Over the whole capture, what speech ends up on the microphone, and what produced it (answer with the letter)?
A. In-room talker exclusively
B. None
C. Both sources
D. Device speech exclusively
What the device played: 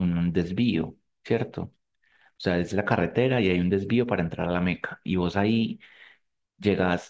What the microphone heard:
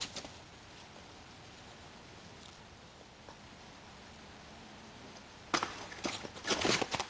B